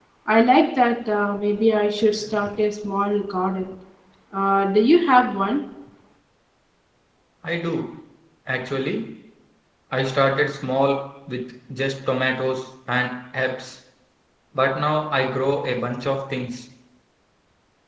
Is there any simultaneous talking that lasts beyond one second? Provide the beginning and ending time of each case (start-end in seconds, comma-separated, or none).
none